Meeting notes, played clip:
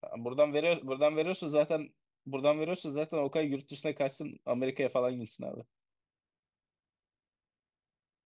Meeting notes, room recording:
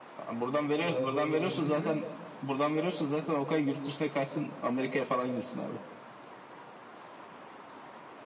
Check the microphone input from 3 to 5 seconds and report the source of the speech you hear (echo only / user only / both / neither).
echo only